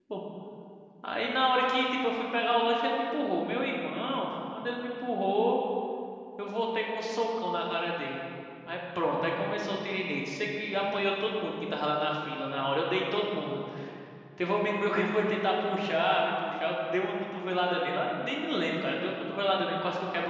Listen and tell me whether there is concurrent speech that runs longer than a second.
No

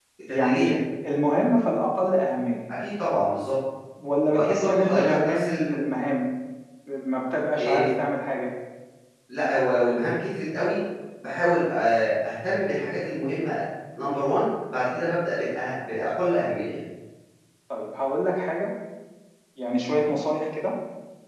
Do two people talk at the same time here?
Yes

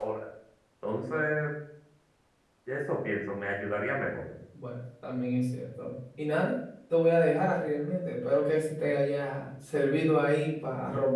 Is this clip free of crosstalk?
Yes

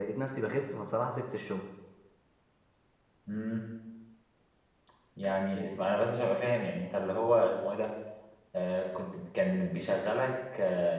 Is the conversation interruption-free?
Yes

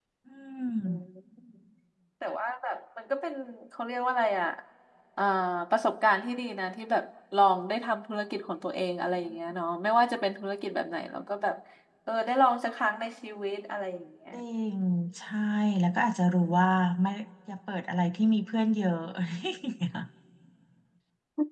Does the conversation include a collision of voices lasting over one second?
No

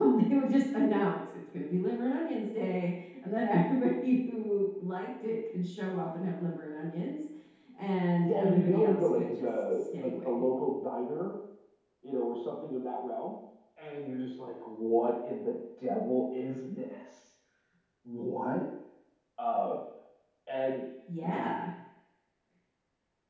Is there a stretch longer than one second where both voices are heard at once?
Yes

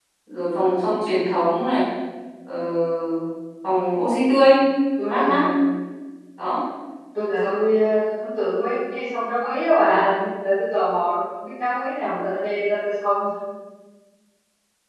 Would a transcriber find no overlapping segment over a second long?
Yes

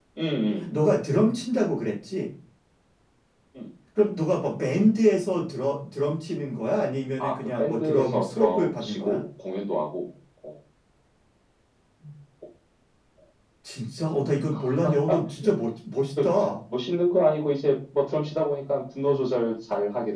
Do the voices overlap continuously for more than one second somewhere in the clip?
Yes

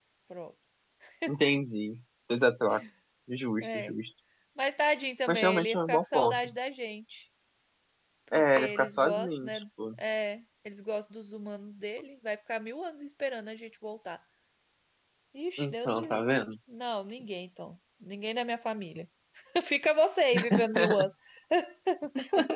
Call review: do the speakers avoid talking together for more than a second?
No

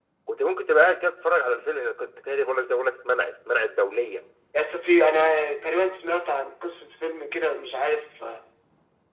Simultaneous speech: No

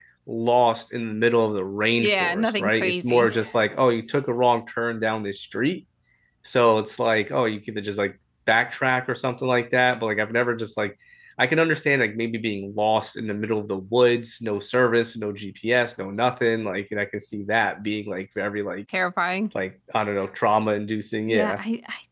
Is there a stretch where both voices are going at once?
Yes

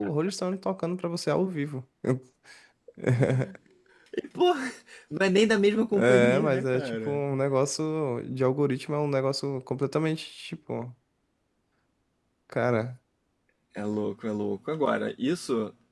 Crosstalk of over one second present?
Yes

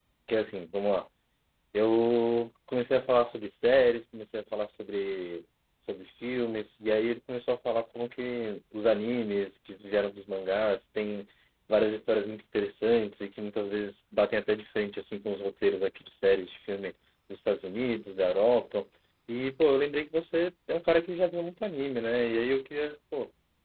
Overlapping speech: No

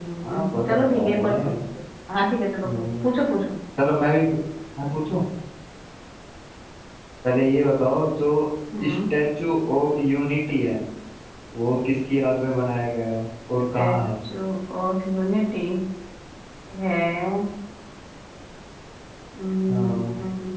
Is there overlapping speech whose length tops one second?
Yes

